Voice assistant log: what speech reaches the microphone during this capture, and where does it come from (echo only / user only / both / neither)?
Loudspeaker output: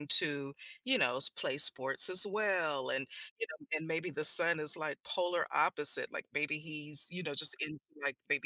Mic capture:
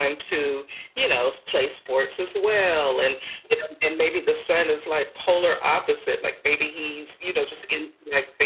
echo only